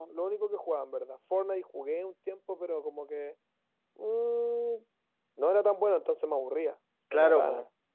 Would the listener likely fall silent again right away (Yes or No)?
No